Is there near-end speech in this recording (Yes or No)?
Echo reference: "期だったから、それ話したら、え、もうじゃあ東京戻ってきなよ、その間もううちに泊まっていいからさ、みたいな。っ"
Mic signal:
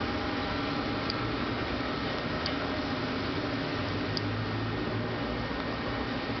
No